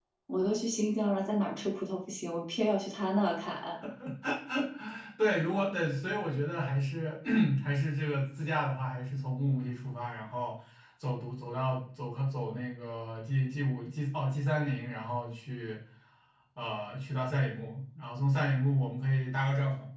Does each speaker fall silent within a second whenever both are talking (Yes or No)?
Yes